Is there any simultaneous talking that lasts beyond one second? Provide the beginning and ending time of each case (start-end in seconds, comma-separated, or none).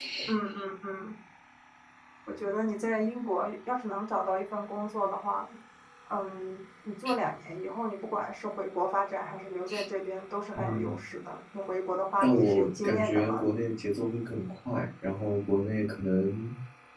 12.2-13.5